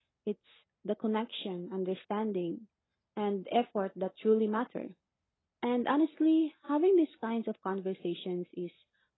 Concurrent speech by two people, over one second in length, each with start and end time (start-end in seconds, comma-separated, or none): none